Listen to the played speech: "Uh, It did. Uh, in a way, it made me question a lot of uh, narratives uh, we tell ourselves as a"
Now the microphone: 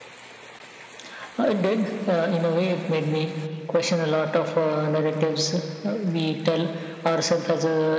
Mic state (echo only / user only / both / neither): echo only